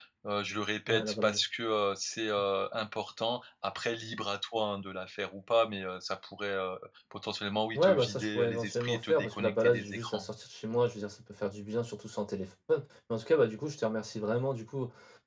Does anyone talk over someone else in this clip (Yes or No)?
Yes